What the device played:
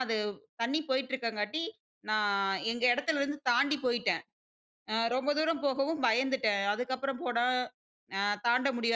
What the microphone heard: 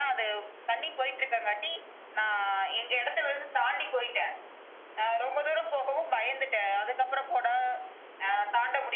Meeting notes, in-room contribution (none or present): none